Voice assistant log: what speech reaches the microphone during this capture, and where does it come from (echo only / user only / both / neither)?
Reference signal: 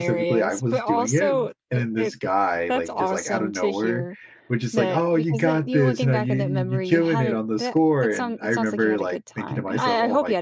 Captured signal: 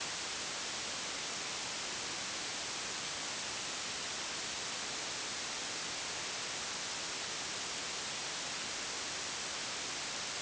neither